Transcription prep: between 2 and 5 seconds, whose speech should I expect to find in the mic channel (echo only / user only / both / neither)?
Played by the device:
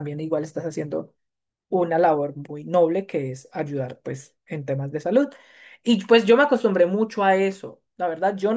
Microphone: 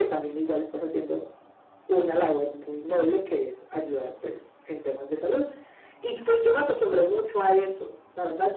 echo only